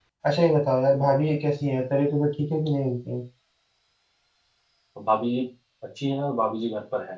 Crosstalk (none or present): none